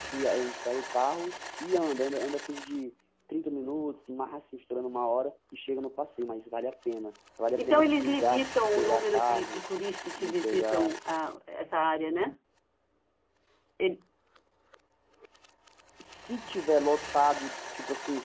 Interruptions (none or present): present